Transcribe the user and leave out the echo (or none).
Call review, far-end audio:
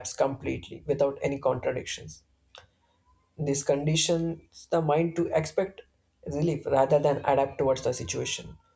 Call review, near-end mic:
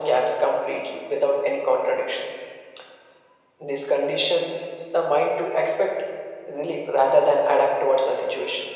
none